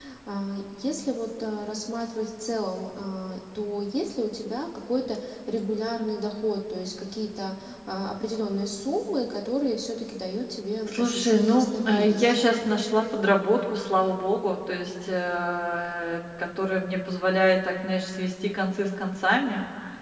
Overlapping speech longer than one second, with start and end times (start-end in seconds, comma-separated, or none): 10.9-12.4